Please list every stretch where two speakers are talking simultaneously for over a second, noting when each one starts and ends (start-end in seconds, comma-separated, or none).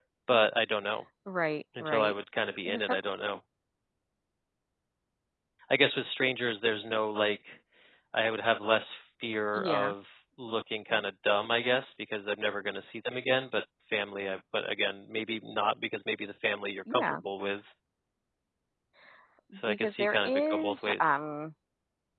19.7-21.2